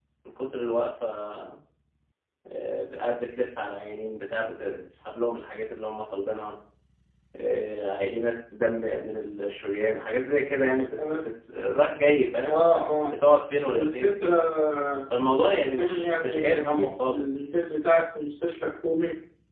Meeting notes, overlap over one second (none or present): present